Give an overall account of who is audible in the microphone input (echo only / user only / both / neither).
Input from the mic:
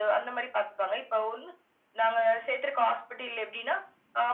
echo only